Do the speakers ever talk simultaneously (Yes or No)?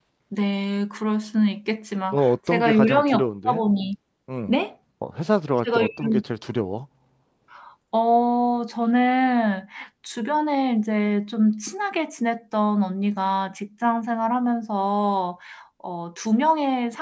Yes